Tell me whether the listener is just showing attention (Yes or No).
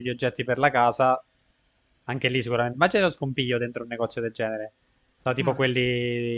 Yes